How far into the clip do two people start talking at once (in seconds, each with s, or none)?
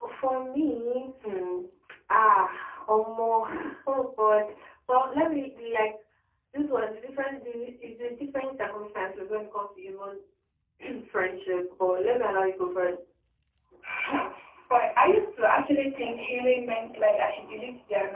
none